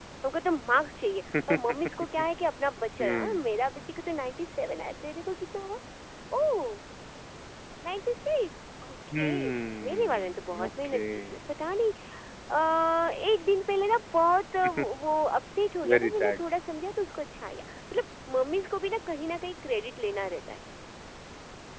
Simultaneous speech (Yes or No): Yes